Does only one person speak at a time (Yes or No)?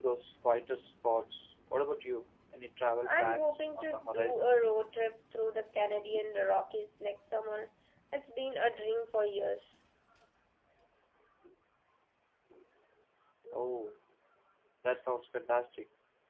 No